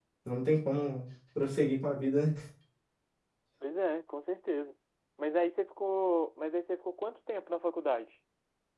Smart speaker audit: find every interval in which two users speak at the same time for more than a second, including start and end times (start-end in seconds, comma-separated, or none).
none